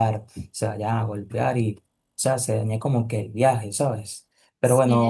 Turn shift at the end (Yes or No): No